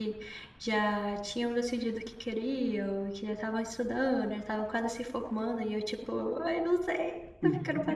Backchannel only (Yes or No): Yes